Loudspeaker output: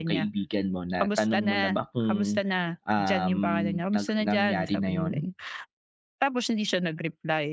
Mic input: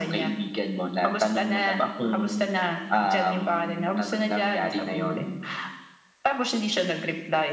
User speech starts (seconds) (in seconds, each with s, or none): none